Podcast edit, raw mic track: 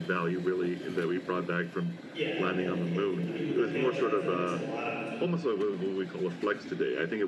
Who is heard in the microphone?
both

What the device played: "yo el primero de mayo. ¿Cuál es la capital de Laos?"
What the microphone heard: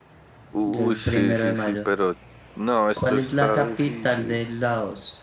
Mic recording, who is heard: both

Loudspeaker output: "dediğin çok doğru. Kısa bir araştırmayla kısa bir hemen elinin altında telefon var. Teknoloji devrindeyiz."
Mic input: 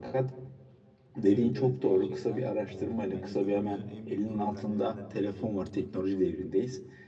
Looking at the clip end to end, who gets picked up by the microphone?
both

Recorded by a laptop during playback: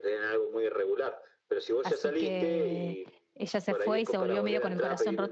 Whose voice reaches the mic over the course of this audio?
both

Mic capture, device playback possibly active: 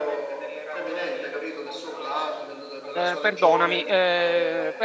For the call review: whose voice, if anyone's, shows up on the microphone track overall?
both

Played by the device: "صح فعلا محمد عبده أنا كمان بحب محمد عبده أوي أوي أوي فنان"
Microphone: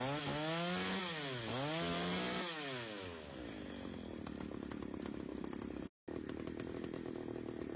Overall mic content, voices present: neither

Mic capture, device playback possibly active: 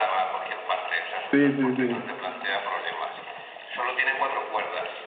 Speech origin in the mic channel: both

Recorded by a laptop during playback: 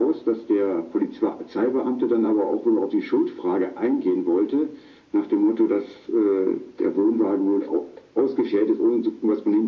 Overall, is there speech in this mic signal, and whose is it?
echo only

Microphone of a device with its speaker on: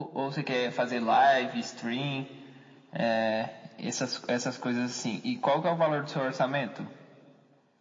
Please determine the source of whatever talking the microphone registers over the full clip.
echo only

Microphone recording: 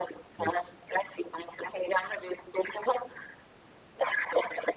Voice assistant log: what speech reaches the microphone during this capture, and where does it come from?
both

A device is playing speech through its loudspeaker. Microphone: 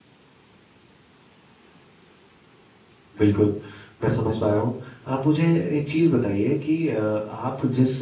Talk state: user only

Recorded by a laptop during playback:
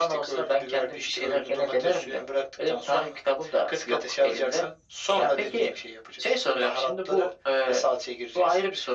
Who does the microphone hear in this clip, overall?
echo only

